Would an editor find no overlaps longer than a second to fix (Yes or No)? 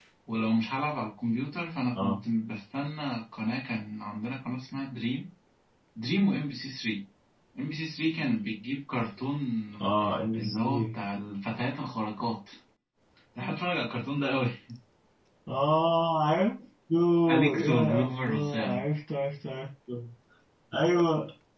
No